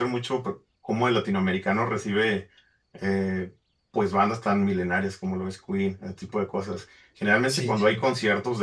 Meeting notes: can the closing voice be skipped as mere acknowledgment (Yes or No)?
Yes